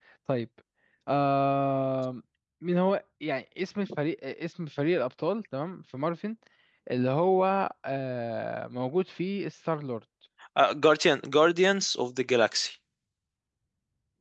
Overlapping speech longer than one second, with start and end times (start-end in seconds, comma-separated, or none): none